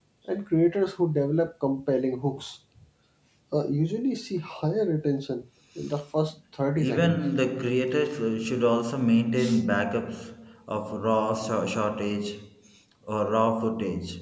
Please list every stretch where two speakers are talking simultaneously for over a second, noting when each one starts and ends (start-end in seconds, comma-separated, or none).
none